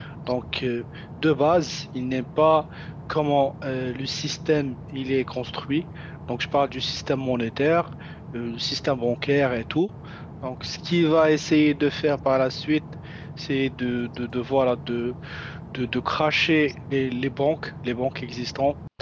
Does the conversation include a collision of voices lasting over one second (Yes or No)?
No